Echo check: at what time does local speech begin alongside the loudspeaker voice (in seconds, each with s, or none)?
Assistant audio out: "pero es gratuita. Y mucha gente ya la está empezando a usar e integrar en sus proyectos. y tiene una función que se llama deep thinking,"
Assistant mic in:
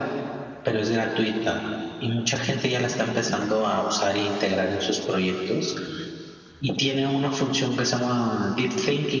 none